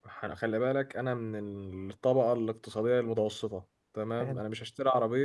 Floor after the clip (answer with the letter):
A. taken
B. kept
B